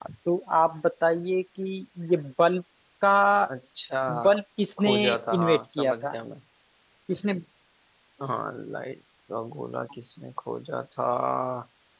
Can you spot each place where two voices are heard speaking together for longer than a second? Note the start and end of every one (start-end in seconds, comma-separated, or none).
4.8-6.2